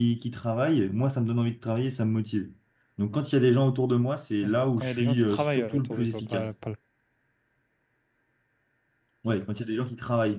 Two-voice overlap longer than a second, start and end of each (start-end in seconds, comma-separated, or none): 4.4-6.5